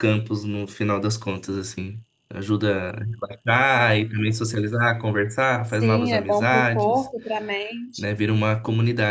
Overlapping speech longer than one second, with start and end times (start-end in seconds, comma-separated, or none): 5.7-7.1